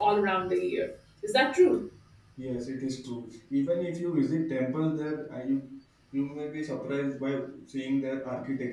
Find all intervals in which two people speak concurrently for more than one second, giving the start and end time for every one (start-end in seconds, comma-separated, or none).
none